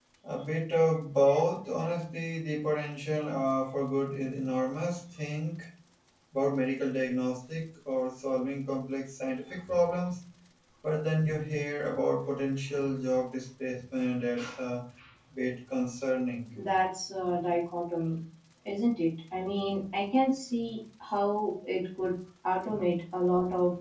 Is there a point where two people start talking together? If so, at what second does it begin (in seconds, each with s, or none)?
none